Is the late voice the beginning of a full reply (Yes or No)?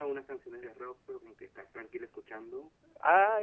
Yes